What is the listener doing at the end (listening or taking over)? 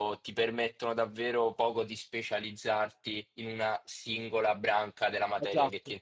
taking over